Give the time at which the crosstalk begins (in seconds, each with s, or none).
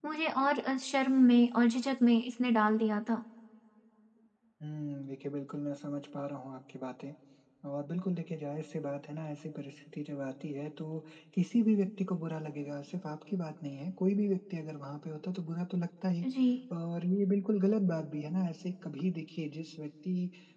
none